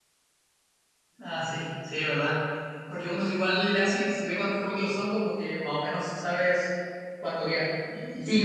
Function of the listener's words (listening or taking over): taking over